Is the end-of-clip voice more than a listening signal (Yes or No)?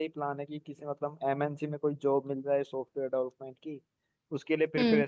No